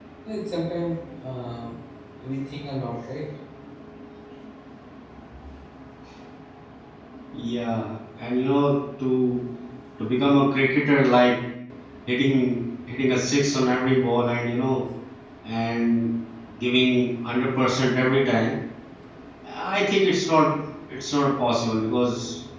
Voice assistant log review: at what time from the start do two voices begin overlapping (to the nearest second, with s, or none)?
none